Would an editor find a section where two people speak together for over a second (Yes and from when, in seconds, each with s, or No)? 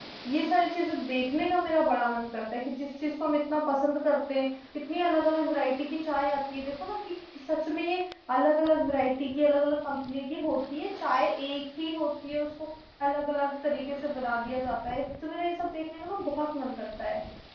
No